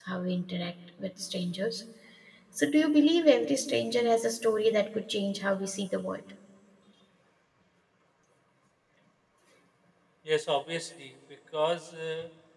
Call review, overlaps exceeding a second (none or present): none